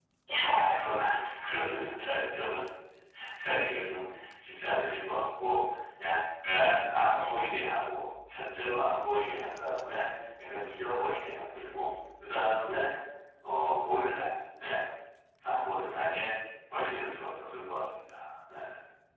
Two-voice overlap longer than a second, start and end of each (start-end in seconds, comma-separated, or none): none